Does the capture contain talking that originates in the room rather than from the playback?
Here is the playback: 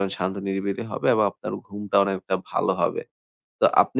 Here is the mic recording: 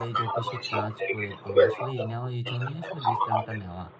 Yes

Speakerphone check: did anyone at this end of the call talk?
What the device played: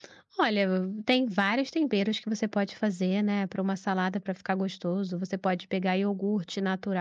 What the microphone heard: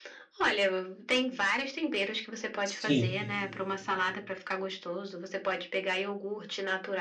Yes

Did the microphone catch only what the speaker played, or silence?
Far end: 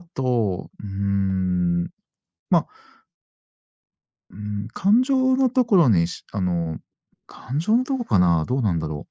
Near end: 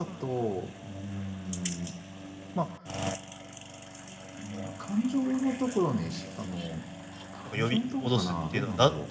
No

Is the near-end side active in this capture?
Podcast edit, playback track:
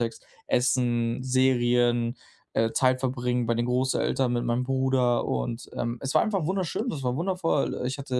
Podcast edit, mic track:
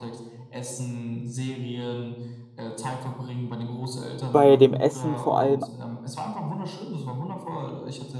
Yes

